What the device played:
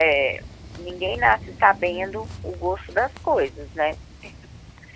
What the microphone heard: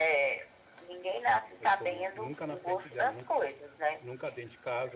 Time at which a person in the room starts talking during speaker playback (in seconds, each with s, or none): 1.6 s